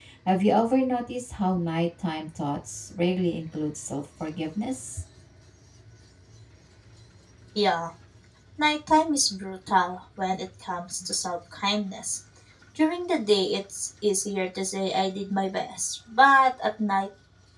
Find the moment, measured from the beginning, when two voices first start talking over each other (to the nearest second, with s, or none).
none